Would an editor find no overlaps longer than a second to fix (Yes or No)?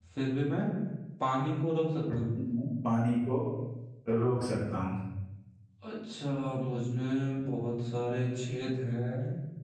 Yes